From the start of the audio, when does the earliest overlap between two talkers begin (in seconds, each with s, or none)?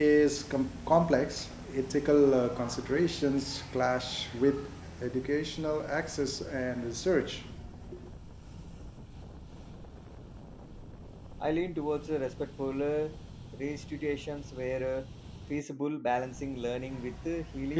none